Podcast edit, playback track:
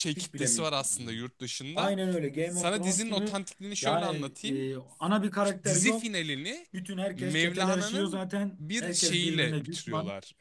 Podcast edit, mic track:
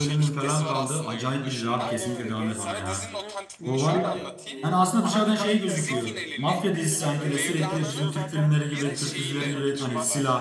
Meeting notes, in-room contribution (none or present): present